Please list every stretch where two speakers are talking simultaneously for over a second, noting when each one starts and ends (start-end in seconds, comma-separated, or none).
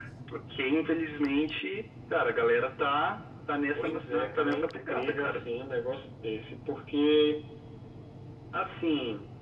3.7-5.4